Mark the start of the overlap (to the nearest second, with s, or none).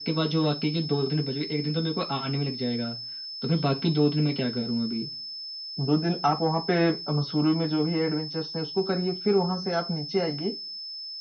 none